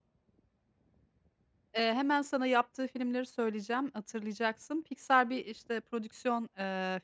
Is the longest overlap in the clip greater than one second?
No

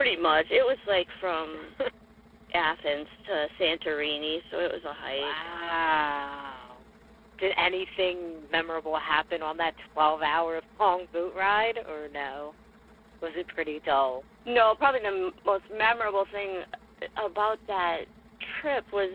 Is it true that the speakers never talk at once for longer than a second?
Yes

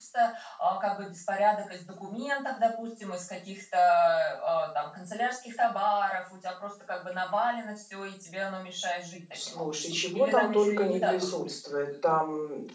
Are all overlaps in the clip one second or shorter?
No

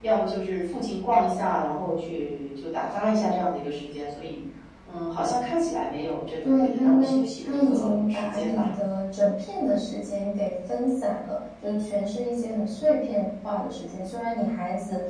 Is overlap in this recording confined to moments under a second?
No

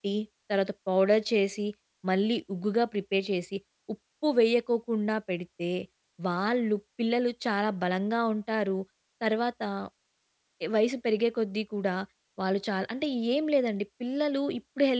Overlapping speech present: No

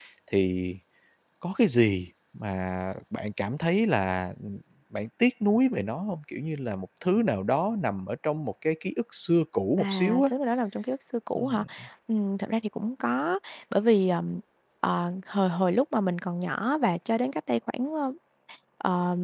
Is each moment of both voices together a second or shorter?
Yes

